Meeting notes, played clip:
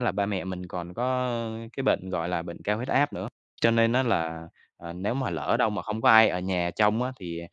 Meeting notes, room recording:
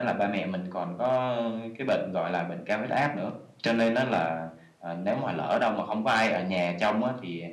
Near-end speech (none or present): none